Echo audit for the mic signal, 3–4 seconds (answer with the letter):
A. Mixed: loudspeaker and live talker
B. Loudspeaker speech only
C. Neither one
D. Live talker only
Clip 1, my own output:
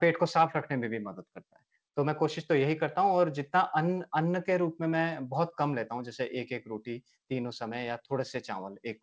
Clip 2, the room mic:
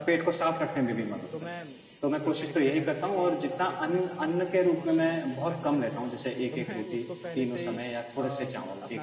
A